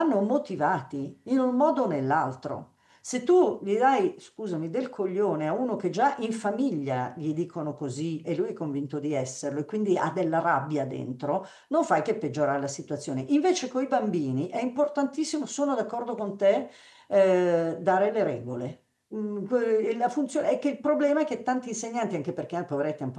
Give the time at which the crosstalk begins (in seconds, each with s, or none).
none